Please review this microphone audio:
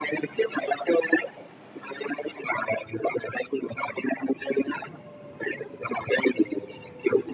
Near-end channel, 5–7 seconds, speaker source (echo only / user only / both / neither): echo only